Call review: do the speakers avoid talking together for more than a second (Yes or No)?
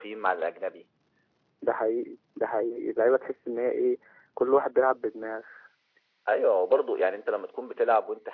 Yes